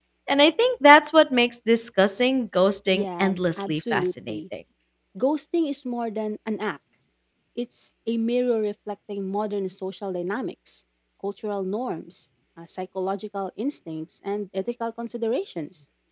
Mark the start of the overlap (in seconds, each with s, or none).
2.9 s